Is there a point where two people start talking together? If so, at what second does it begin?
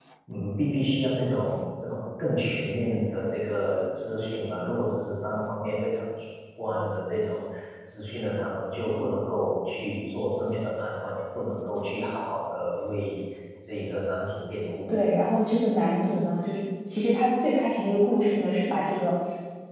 none

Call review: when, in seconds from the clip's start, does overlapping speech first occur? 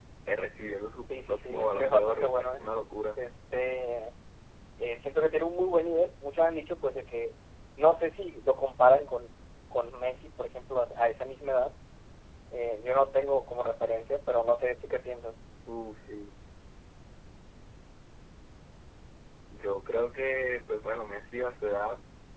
1.1 s

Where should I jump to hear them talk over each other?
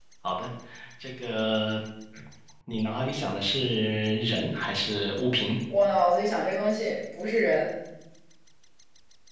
none

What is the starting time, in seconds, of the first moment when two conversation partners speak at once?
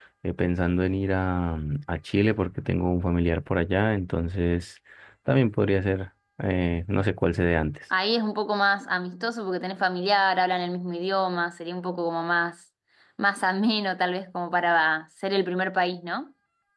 none

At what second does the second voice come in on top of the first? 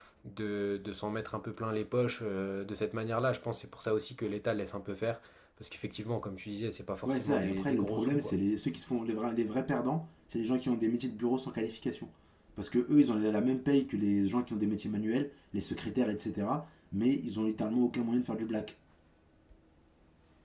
7.0 s

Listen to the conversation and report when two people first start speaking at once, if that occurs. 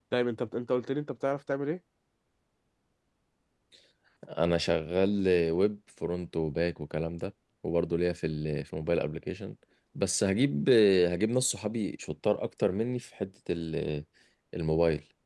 none

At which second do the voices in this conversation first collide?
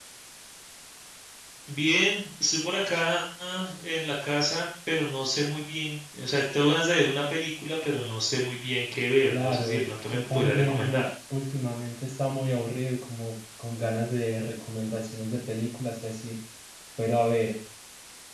9.3 s

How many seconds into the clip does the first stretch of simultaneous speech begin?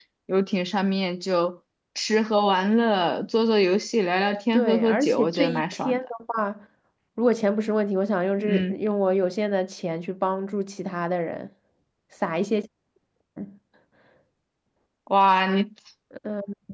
4.5 s

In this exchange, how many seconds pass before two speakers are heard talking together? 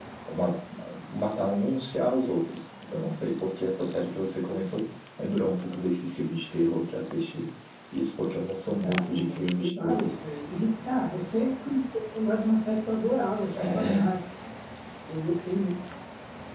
8.8 s

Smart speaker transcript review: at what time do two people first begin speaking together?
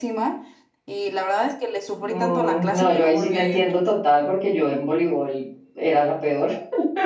2.0 s

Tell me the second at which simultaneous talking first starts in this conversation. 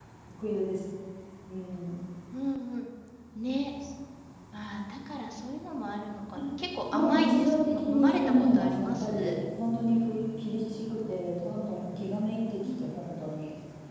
6.9 s

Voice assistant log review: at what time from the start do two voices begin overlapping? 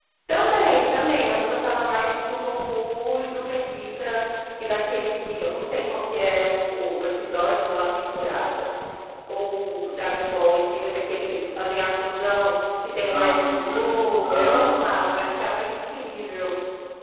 13.1 s

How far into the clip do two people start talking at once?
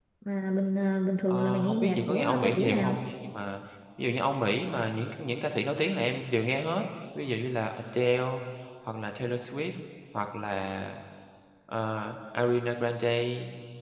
1.3 s

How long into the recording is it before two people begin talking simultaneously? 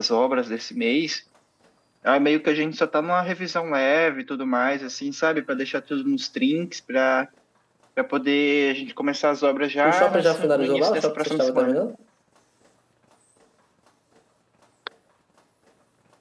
9.8 s

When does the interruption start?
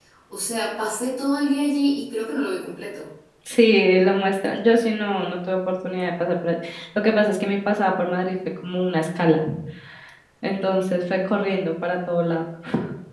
none

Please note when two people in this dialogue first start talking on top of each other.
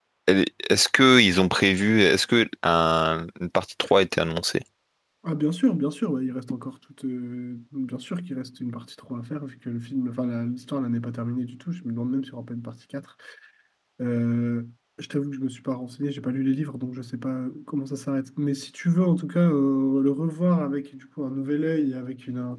none

